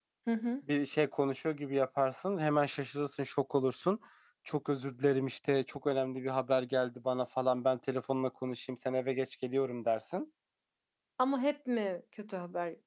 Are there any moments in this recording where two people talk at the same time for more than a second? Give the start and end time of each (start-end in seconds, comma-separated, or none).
none